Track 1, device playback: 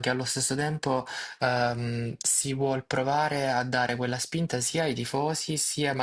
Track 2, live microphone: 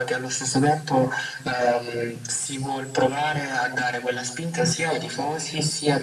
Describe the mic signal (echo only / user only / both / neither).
echo only